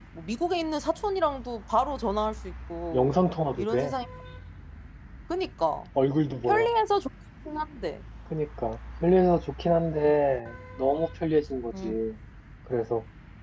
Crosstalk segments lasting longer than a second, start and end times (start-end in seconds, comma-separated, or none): none